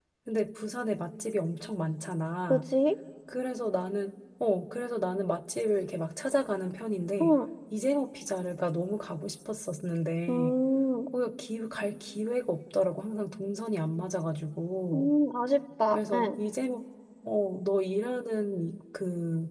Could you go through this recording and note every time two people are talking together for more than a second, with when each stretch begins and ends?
none

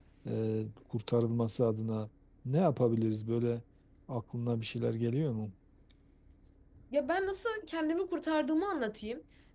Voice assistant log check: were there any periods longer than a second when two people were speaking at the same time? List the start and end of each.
none

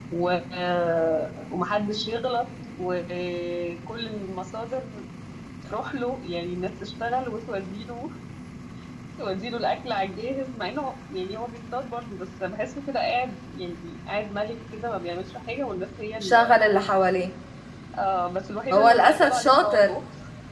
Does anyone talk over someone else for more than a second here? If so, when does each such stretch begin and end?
18.7-20.0

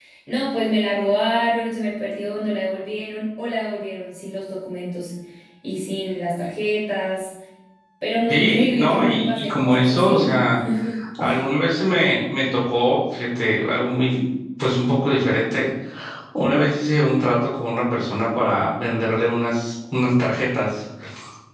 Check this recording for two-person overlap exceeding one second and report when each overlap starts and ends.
8.3-10.4

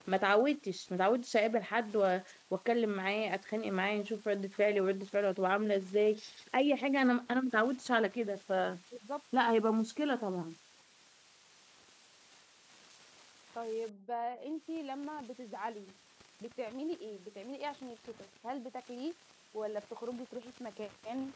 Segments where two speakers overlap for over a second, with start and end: none

